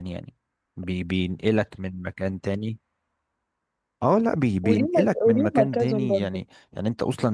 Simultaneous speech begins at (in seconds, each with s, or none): 4.7 s